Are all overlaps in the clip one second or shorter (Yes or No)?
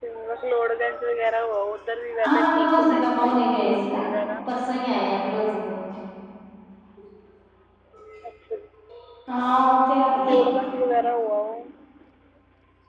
No